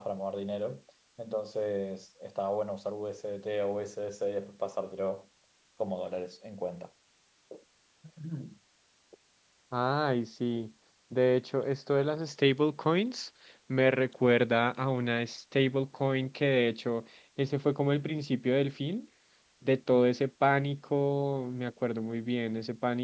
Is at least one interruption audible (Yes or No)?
No